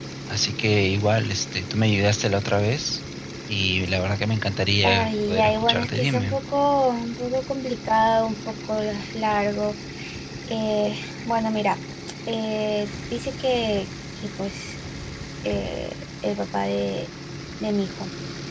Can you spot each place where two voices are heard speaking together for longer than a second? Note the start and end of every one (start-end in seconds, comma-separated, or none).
4.8-6.4